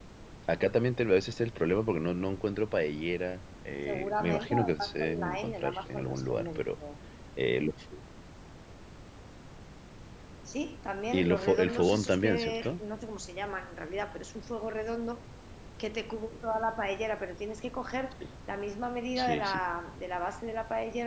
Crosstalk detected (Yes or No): Yes